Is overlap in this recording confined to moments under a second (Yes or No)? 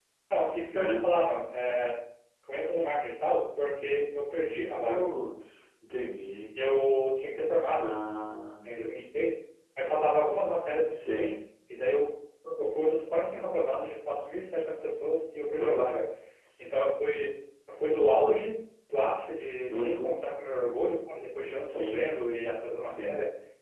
Yes